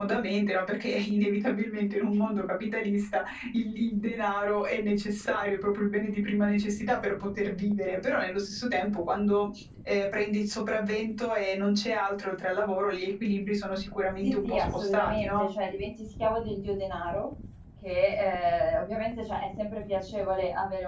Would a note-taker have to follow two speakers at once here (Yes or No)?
Yes